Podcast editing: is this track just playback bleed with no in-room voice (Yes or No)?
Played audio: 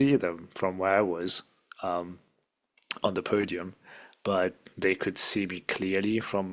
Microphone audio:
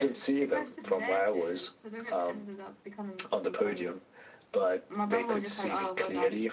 No